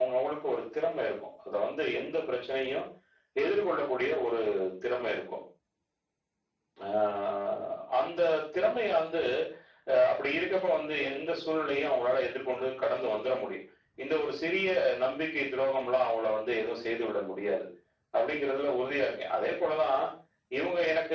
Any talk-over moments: No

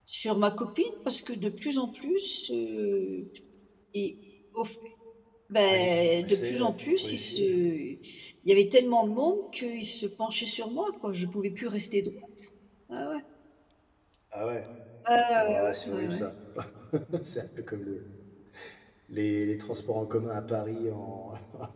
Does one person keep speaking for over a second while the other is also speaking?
Yes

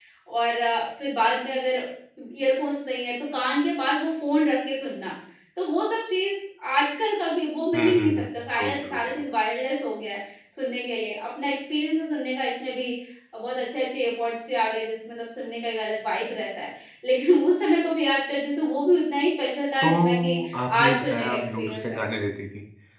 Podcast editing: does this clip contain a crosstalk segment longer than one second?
Yes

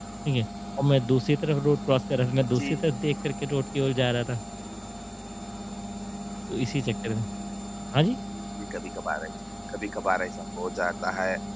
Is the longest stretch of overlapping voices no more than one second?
Yes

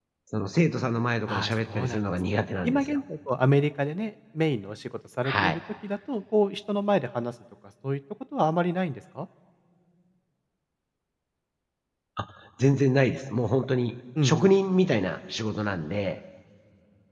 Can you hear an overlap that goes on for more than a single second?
Yes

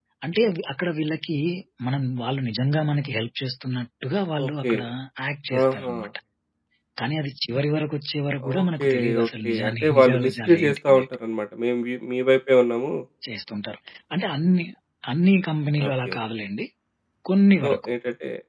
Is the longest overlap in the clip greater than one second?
Yes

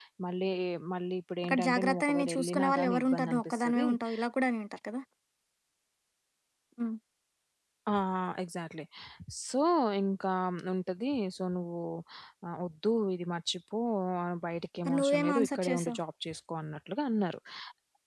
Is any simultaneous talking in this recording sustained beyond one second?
Yes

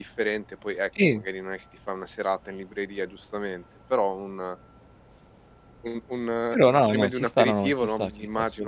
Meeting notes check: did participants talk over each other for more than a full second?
Yes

